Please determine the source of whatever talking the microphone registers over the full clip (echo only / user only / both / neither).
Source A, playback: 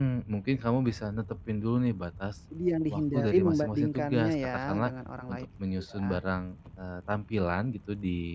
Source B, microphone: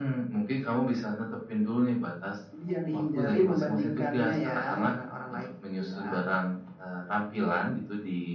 echo only